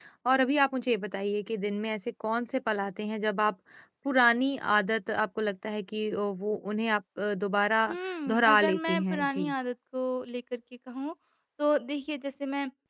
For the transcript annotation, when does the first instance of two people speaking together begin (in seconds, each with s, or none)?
8.3 s